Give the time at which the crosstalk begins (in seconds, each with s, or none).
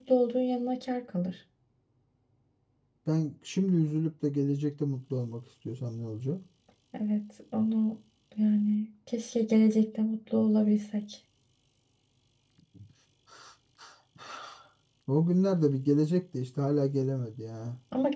none